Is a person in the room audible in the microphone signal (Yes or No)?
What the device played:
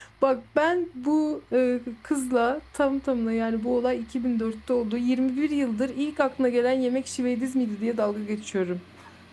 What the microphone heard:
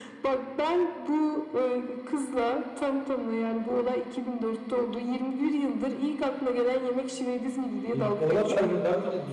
Yes